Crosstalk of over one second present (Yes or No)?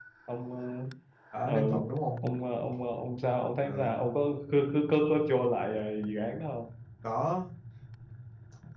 No